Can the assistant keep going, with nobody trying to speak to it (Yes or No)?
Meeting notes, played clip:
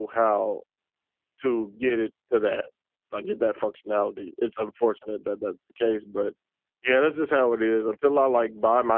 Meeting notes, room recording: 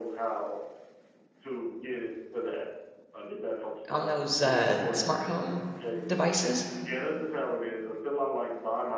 No